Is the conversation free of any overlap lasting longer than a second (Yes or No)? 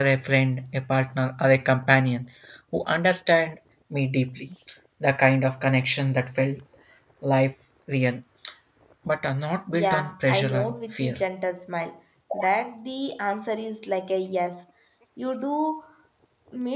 No